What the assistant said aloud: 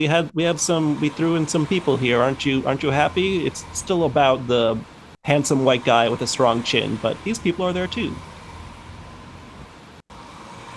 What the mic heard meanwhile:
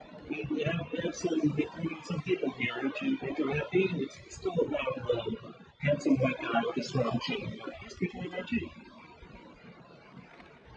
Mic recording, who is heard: echo only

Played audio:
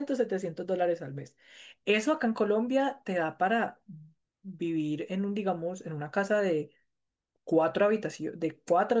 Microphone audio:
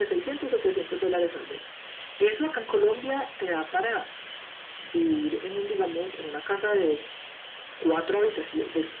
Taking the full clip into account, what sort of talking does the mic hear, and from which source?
echo only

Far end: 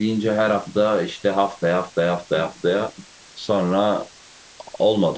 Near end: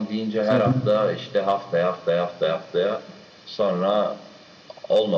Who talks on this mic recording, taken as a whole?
both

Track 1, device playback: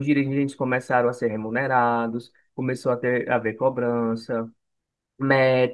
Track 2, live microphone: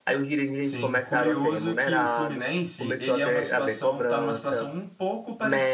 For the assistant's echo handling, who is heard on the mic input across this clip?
both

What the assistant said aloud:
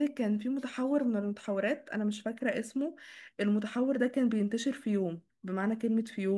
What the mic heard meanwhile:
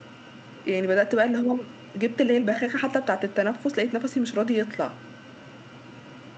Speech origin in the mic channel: user only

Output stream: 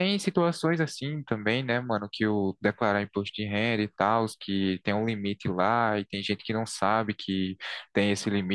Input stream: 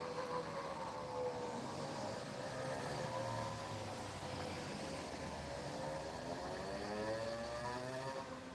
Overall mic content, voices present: neither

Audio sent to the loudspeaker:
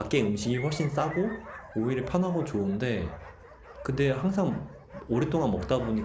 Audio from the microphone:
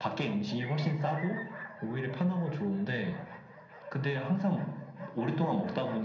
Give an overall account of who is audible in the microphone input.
echo only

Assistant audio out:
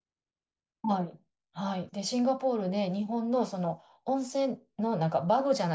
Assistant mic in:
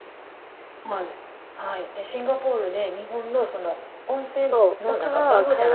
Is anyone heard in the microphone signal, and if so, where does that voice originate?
both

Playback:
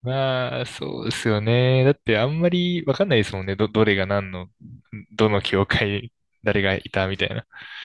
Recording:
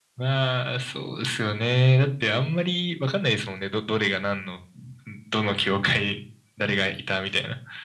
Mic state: echo only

